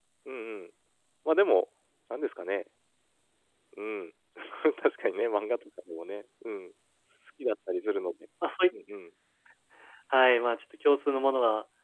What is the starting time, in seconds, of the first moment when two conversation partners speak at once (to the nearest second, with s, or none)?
none